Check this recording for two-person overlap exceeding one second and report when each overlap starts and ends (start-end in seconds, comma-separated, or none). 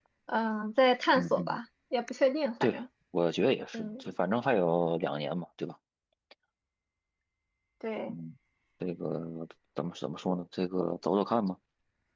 none